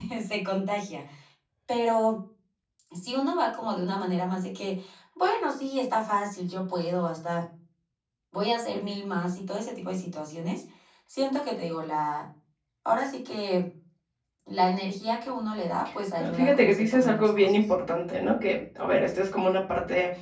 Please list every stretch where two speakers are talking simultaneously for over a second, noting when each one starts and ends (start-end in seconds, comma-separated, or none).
16.2-17.6